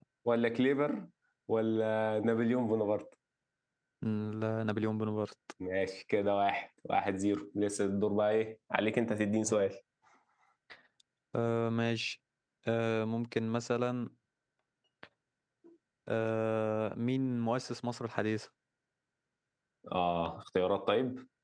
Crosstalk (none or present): none